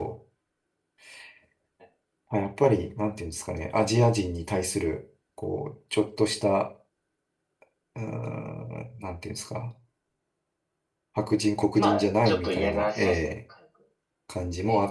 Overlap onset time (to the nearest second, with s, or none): 12 s